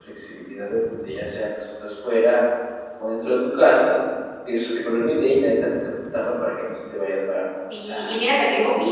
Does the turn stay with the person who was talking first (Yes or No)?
No